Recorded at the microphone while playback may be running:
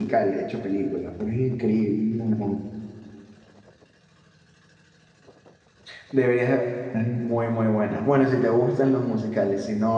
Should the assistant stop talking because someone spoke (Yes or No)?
Yes